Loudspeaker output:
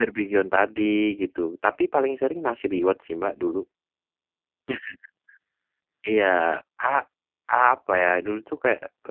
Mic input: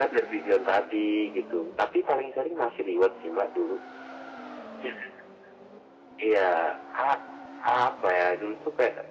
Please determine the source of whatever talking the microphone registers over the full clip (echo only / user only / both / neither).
echo only